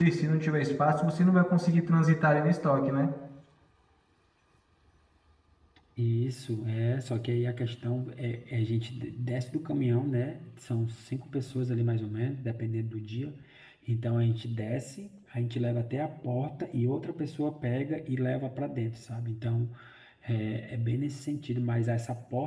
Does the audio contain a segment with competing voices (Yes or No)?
No